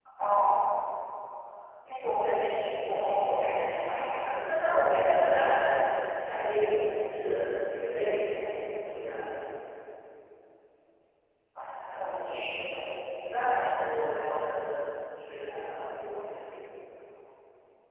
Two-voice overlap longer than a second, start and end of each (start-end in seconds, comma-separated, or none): none